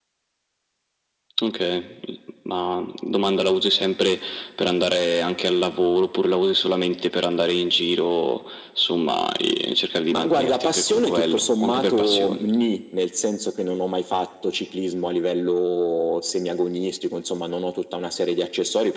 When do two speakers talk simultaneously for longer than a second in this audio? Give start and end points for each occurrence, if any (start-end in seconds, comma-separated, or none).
10.1-12.4